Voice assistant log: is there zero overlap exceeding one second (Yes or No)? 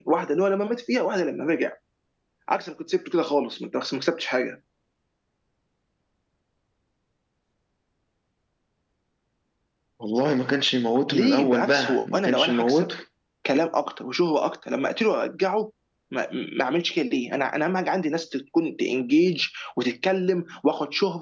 No